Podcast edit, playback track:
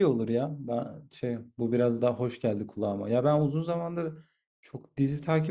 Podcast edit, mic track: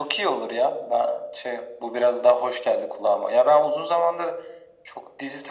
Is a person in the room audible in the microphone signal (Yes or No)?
No